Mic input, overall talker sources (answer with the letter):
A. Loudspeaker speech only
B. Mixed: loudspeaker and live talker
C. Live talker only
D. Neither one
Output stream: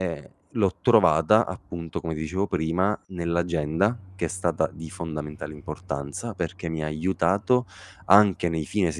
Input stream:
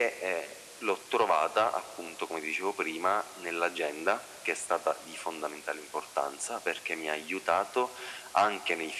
A